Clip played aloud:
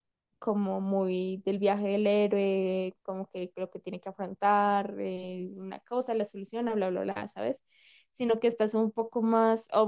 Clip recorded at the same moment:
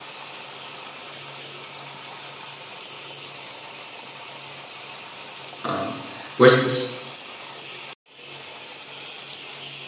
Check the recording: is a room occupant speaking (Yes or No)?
Yes